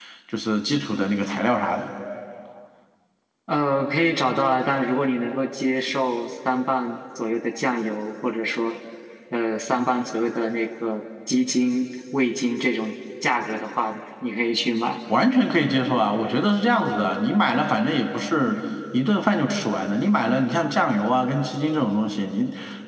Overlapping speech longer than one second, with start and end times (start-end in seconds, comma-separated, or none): none